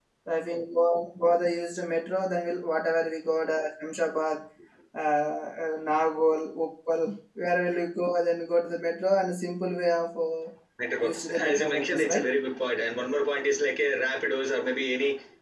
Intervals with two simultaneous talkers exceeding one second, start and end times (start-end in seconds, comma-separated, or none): 11.0-12.3